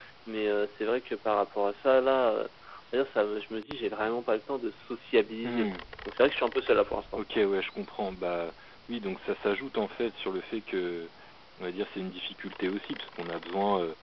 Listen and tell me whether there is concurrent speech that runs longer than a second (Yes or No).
No